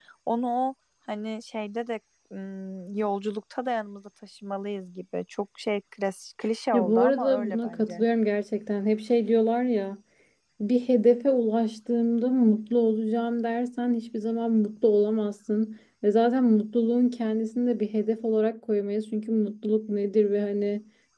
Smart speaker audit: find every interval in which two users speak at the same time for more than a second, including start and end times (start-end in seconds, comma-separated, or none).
6.7-8.0